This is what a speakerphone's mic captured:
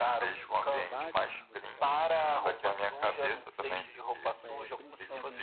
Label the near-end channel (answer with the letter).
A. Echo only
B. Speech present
B